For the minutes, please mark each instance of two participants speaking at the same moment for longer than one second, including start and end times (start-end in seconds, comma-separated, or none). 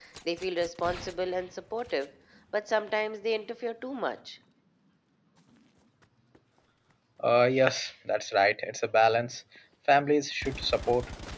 none